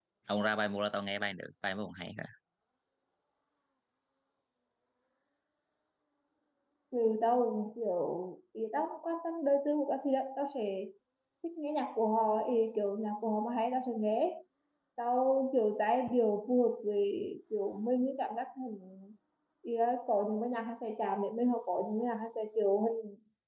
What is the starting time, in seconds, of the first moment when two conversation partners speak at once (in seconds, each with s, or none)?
none